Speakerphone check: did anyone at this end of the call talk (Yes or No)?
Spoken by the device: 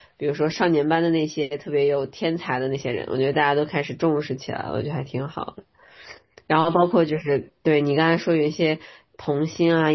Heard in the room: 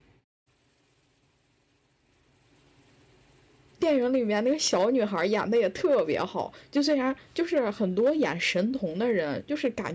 Yes